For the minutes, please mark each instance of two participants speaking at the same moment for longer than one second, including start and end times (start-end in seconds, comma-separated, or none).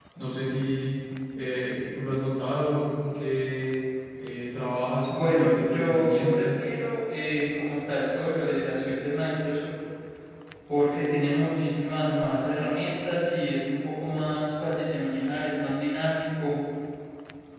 5.1-6.6